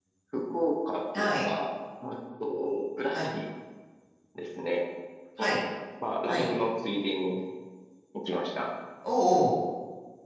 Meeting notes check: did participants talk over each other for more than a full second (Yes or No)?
No